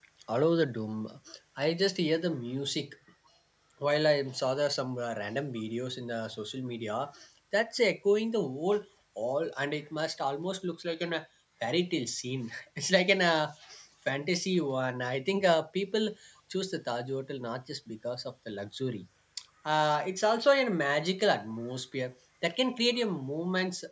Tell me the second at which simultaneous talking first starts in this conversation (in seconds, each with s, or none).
none